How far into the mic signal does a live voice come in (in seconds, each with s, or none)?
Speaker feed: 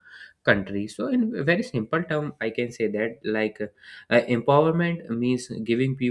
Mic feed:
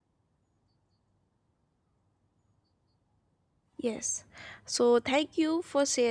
3.8 s